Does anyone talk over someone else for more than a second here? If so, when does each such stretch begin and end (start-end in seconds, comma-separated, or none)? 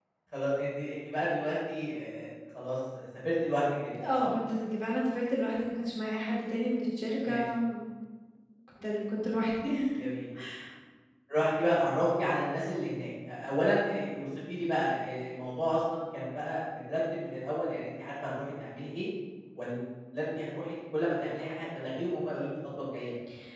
none